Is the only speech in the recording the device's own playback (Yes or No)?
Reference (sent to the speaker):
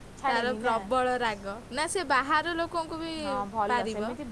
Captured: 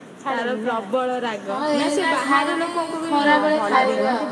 No